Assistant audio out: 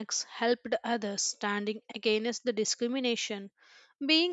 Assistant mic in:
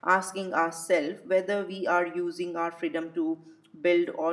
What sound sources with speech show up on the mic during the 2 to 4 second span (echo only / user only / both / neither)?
user only